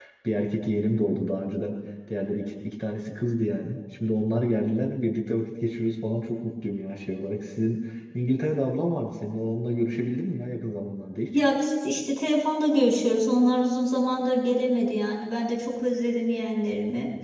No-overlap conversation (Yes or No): Yes